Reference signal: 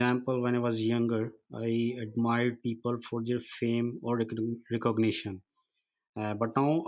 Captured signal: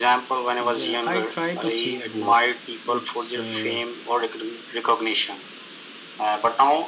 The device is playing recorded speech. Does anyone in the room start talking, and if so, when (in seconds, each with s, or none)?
0.6 s